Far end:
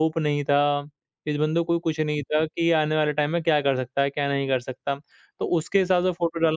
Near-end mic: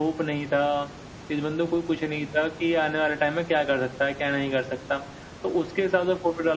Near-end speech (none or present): none